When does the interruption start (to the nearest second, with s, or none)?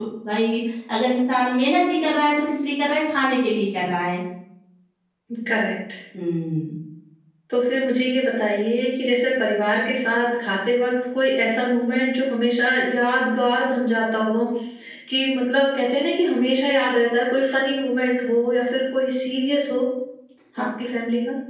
none